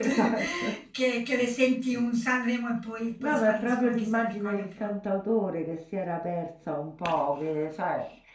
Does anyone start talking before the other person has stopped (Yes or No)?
Yes